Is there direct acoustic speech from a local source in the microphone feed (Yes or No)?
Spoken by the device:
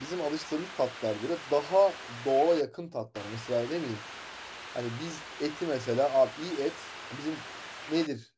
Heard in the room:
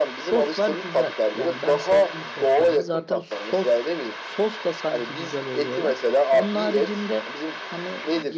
Yes